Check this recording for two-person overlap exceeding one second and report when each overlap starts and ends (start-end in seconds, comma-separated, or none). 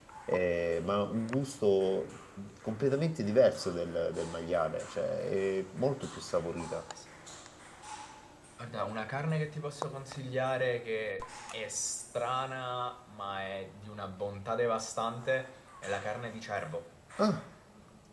none